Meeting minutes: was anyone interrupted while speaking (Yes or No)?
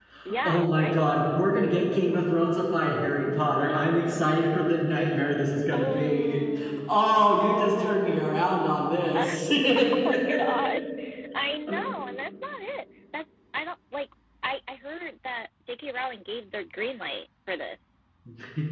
Yes